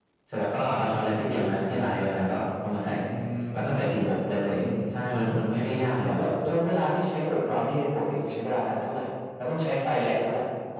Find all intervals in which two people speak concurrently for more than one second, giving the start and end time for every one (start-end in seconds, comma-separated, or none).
none